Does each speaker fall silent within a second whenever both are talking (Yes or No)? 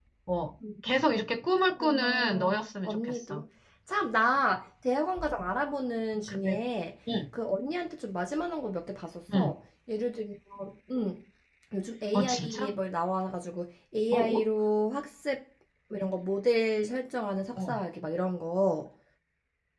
No